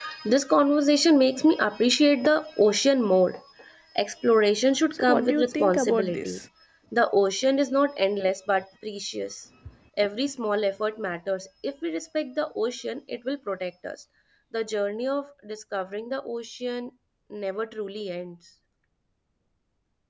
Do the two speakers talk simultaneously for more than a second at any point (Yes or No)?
Yes